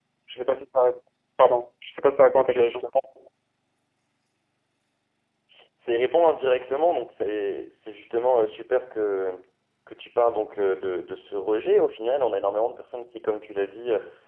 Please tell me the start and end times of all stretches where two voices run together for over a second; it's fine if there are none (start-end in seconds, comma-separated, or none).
none